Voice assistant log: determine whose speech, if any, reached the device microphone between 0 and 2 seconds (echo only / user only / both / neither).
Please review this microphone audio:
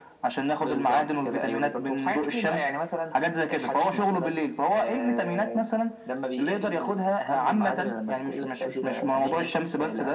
echo only